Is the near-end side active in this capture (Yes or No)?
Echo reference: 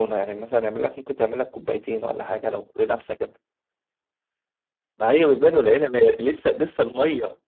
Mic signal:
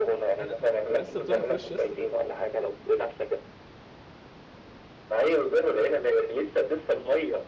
Yes